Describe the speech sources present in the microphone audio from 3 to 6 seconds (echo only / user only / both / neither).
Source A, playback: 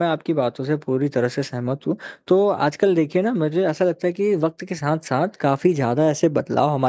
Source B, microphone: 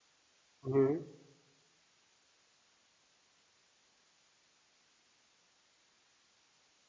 neither